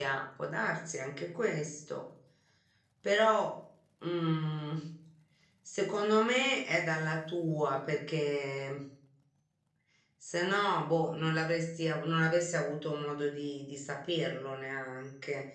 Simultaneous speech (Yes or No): No